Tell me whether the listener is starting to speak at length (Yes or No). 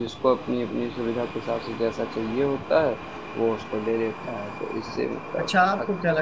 Yes